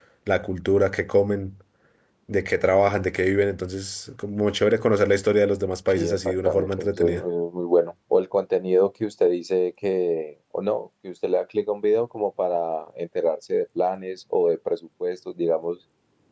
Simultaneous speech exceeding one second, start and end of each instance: 6.0-7.2

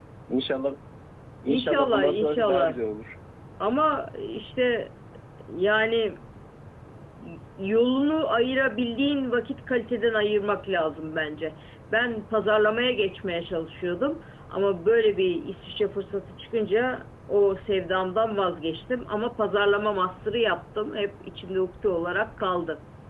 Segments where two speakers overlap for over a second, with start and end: 1.4-2.8

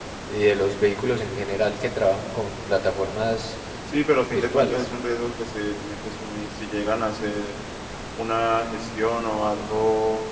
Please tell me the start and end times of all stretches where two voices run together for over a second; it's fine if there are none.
none

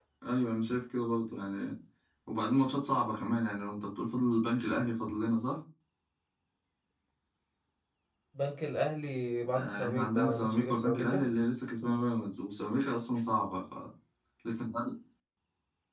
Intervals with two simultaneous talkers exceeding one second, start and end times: 9.5-11.2

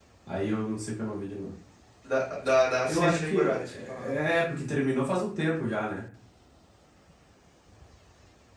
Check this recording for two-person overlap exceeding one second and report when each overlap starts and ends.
2.9-4.1

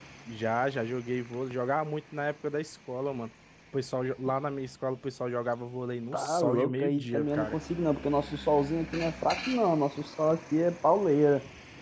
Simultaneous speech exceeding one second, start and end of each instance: 6.1-7.6

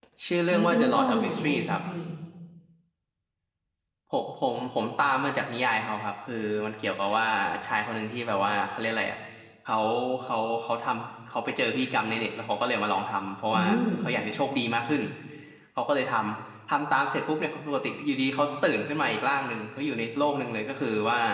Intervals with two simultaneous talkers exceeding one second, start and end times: 0.5-1.8

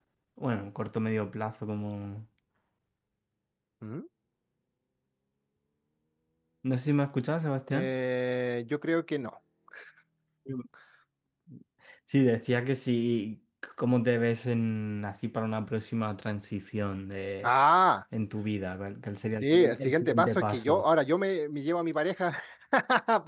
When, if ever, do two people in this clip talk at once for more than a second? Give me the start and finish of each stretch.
19.4-20.8

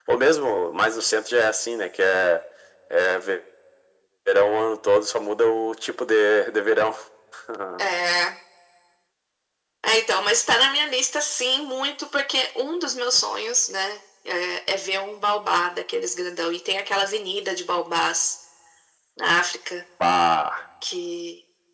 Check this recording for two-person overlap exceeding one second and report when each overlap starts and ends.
none

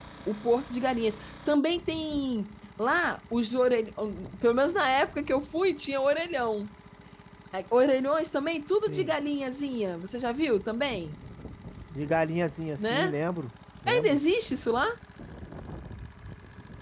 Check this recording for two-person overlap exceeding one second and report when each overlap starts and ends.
none

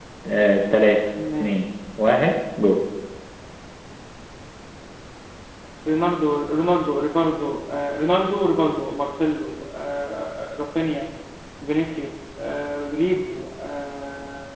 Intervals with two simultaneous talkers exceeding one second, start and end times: none

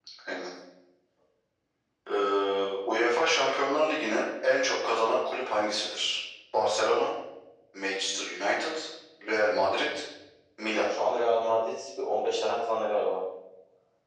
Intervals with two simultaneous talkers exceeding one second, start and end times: none

